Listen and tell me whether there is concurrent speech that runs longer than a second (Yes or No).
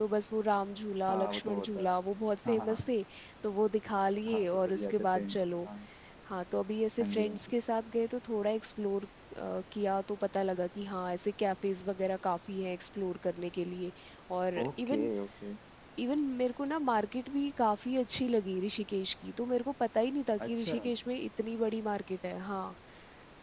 Yes